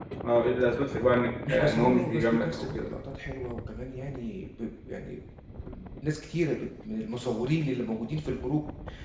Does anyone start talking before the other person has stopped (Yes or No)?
Yes